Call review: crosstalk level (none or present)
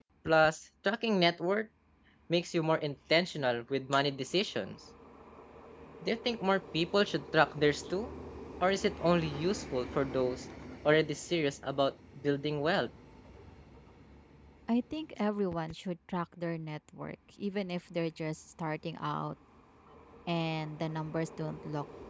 none